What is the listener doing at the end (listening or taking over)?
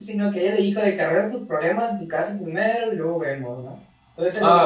listening